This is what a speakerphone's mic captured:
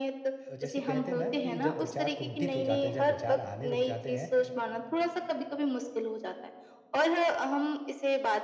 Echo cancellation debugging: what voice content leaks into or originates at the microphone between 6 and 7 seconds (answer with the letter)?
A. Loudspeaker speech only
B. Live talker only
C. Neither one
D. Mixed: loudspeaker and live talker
A